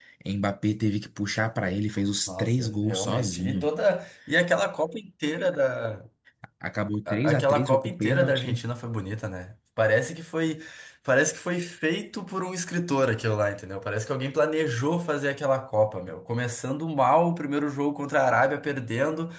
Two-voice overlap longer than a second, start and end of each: 2.3-3.7, 7.1-8.6

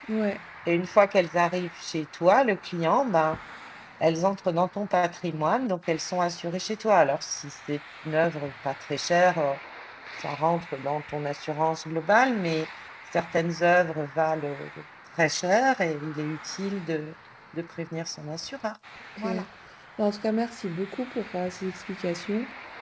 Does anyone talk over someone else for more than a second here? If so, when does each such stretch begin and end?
none

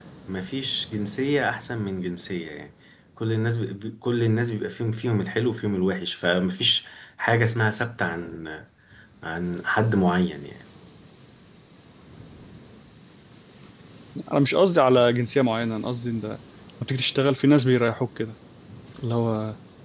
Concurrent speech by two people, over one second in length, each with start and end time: none

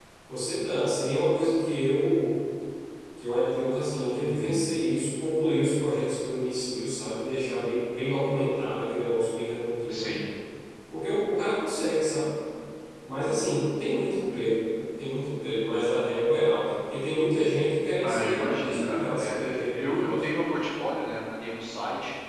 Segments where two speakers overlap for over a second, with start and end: 18.0-20.2

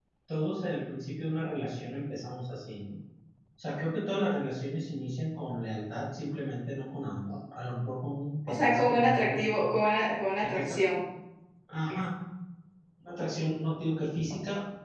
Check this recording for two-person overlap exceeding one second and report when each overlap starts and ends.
8.5-9.7

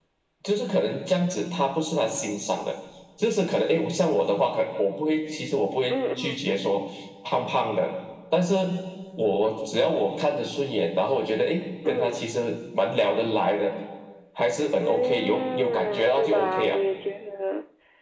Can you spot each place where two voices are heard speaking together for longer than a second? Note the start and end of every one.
14.8-16.8

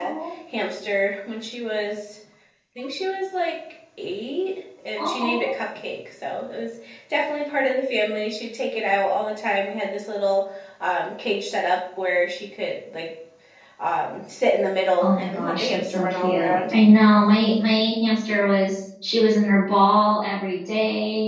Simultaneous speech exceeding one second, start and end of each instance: 15.0-16.7

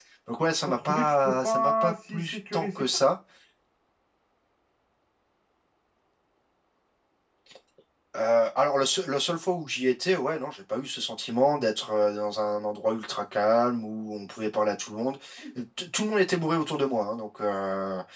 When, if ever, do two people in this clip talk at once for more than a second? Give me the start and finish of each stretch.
0.7-3.0

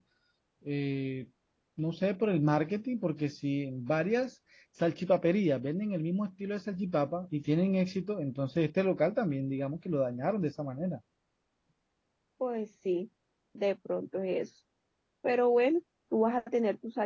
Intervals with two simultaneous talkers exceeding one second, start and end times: none

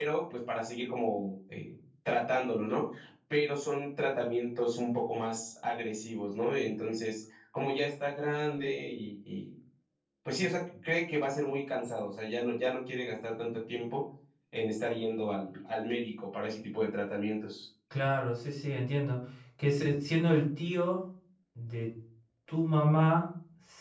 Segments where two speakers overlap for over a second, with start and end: none

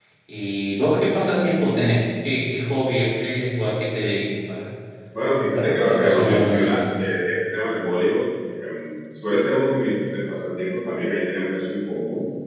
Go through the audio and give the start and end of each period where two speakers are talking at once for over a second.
5.3-6.8

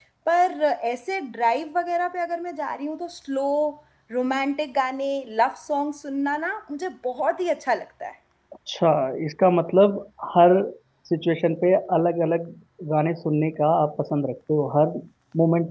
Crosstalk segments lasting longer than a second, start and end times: none

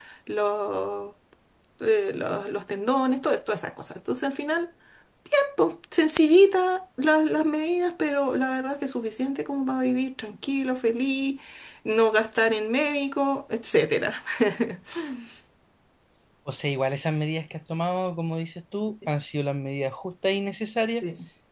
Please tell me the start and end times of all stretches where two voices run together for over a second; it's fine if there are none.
none

